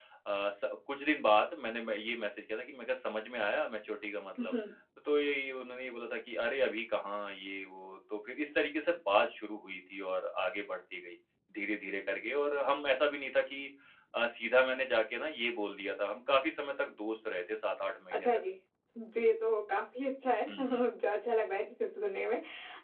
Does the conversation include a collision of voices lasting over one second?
No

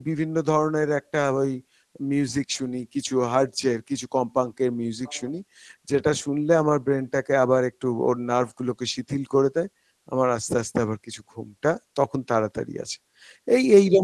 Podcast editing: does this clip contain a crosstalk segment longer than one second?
No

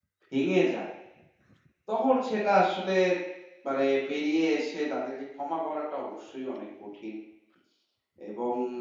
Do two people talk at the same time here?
No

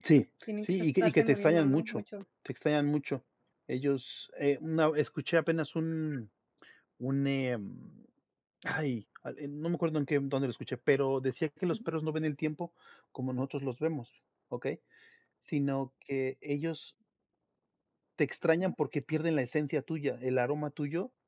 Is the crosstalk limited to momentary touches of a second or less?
No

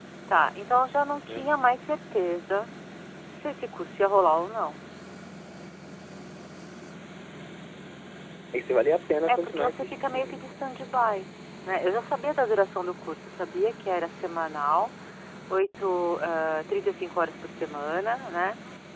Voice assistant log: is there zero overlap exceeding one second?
No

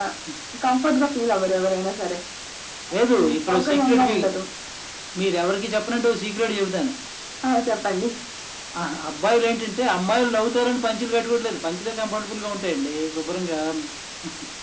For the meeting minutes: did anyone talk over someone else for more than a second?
Yes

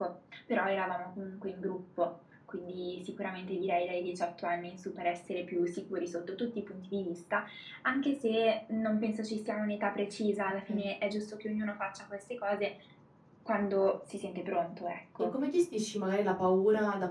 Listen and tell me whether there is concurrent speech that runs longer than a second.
No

